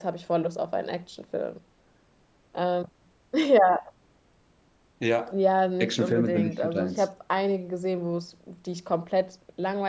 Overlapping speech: Yes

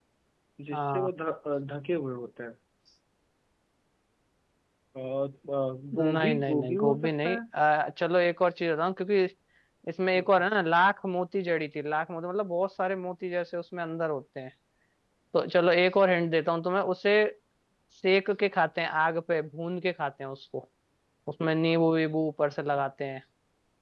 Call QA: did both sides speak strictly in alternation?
No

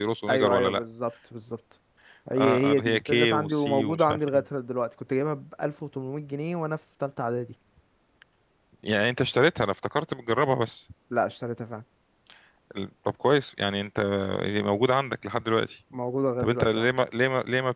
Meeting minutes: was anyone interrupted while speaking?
Yes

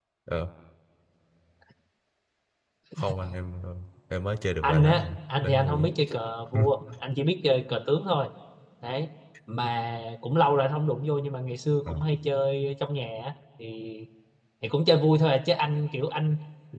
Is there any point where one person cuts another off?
Yes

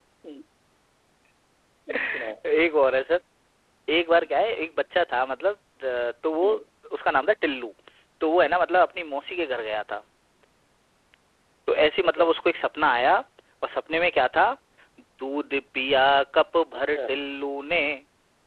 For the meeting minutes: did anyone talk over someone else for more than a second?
No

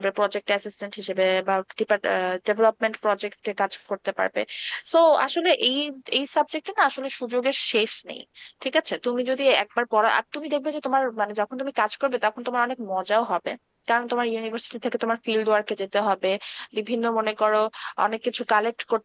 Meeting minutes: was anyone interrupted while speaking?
No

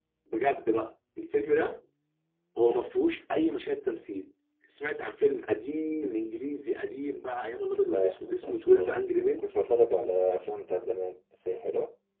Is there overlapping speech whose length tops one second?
Yes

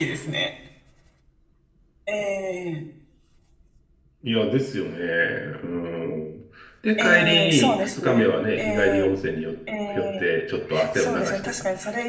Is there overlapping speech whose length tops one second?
Yes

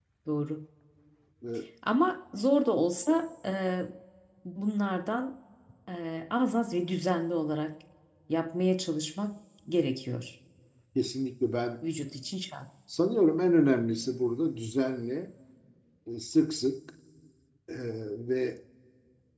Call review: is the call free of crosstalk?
Yes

